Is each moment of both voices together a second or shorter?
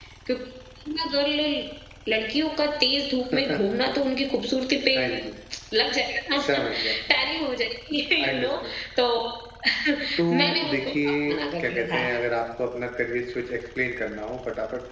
No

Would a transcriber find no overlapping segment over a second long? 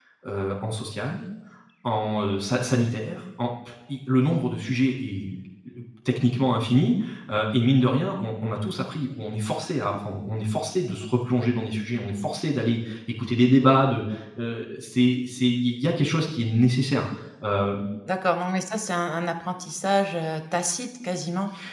Yes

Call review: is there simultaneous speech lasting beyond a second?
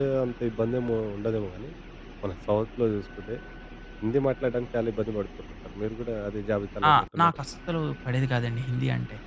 No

